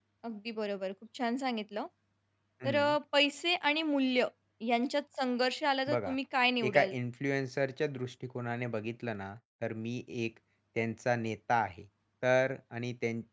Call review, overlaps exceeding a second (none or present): none